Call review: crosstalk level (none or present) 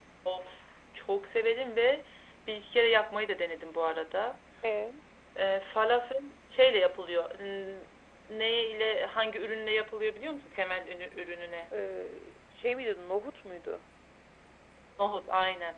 none